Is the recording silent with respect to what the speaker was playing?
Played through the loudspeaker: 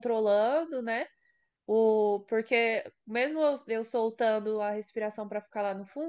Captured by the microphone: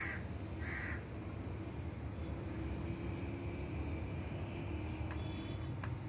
Yes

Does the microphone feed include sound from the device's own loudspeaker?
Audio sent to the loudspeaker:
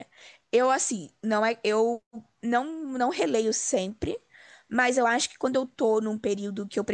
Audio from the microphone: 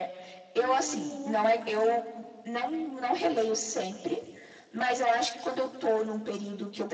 Yes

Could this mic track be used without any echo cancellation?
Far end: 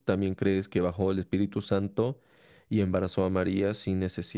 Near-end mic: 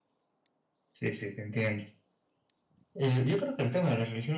Yes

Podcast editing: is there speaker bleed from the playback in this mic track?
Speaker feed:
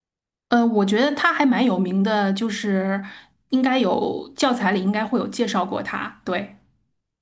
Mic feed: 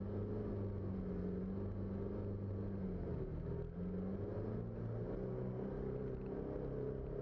No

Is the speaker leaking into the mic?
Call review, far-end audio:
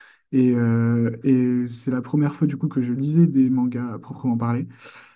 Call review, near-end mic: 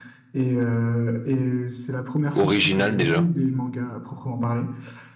Yes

